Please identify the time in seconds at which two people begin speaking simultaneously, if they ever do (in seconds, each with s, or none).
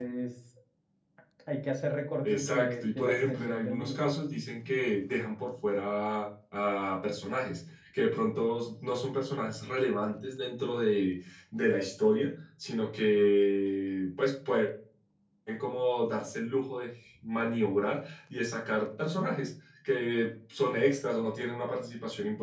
2.2 s